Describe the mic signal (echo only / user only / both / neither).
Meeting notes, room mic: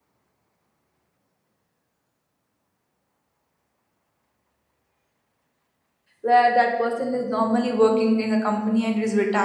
user only